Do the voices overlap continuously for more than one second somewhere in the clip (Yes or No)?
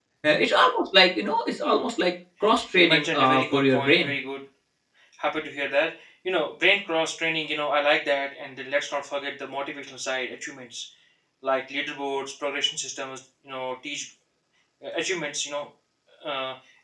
Yes